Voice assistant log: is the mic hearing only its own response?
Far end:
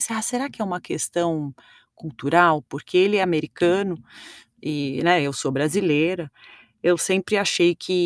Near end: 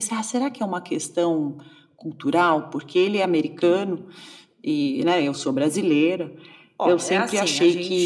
No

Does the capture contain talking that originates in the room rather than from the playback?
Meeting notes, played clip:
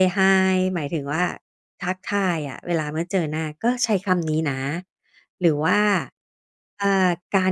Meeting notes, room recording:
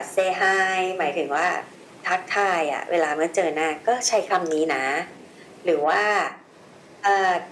No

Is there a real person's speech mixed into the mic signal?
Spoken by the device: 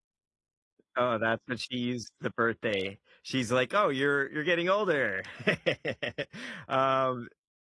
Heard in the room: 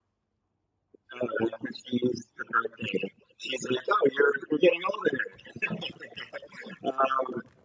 No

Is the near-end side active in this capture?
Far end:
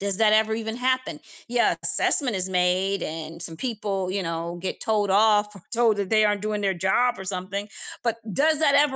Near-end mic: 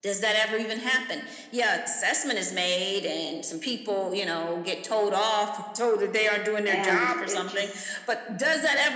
Yes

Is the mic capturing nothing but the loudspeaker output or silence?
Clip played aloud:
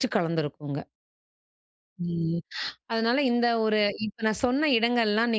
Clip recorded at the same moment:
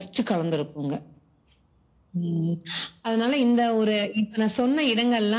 Yes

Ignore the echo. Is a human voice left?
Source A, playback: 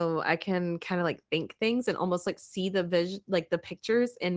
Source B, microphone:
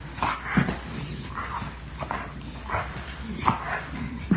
No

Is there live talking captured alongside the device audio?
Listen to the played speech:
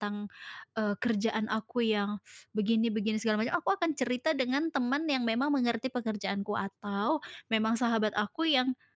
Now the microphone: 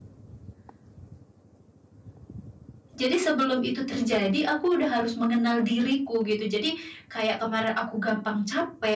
Yes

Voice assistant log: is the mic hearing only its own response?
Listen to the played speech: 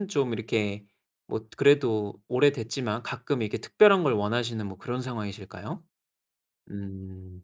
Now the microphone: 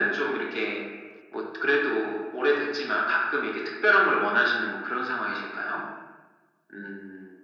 Yes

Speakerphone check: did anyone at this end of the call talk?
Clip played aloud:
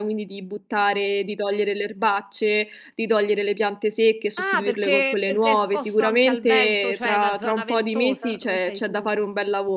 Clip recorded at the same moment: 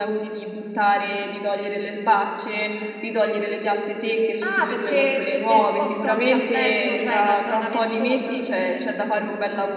No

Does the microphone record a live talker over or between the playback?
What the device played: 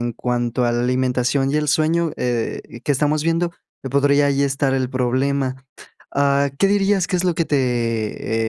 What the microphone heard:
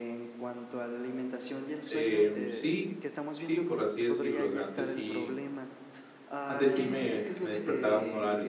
Yes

